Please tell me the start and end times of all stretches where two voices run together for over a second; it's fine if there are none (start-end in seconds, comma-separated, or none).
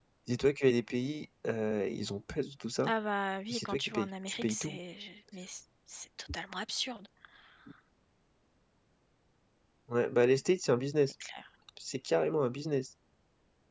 3.5-4.8